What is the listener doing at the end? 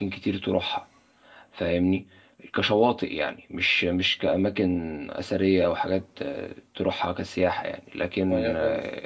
listening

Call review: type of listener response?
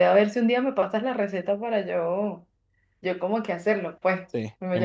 taking over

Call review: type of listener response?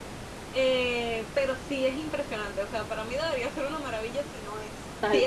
taking over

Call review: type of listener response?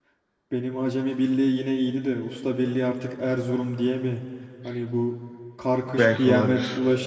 listening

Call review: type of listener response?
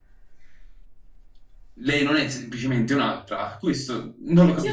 taking over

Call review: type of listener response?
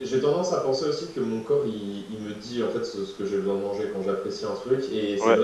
listening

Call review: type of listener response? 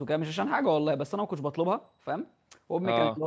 listening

